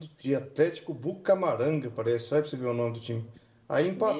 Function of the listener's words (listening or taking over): listening